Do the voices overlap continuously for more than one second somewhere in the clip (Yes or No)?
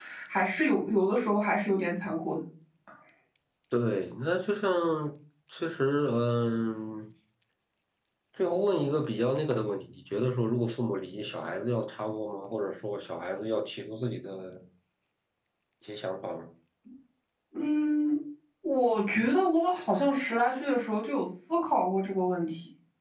No